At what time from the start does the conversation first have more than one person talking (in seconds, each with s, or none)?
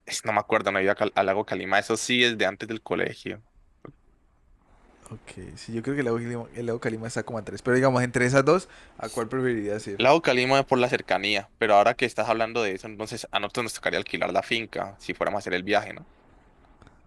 none